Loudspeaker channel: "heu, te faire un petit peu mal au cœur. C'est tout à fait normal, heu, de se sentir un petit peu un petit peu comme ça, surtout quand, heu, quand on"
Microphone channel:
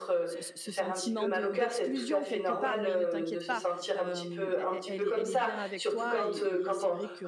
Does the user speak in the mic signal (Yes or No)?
Yes